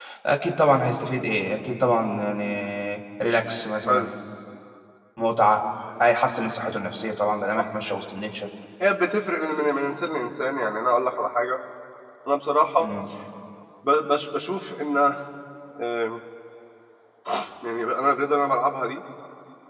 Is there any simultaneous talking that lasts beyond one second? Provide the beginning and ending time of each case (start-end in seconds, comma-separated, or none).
none